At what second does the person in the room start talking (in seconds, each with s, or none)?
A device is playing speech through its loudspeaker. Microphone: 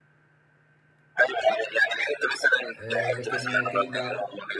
2.8 s